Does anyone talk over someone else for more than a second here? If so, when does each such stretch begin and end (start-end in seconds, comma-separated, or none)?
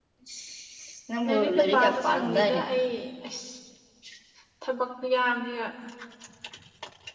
1.3-2.6